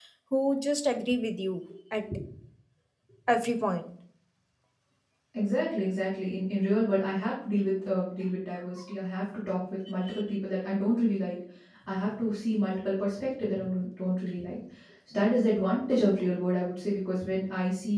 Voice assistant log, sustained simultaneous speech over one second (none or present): none